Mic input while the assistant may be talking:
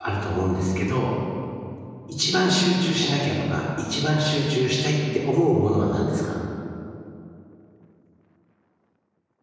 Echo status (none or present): none